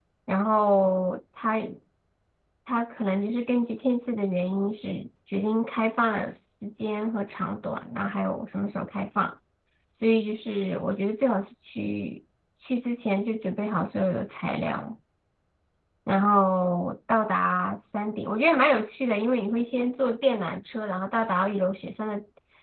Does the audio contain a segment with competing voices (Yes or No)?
No